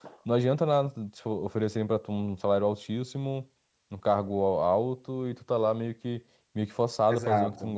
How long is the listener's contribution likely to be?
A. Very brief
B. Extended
B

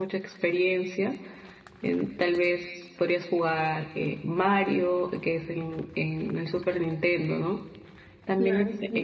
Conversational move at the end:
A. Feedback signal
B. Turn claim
A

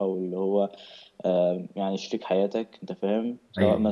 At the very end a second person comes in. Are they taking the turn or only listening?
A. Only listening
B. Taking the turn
A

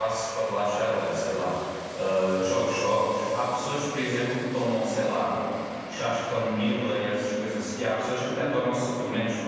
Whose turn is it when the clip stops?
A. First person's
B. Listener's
A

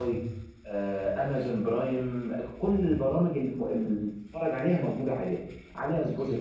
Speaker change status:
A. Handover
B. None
B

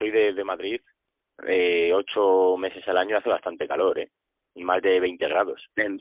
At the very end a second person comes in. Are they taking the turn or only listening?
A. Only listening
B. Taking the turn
A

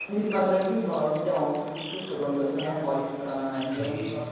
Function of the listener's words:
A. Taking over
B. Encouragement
A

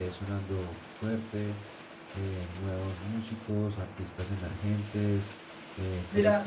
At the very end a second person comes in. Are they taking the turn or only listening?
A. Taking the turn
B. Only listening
B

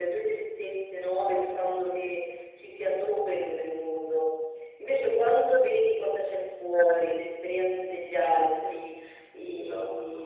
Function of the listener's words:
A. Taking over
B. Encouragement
B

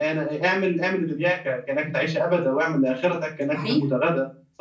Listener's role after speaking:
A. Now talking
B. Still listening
B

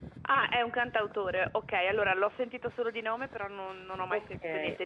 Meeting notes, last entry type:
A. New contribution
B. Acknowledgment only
A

